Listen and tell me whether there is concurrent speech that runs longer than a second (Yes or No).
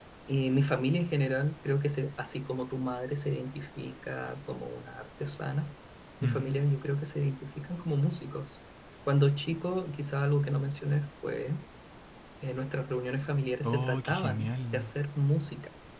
Yes